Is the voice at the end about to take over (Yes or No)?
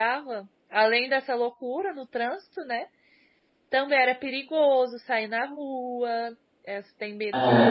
No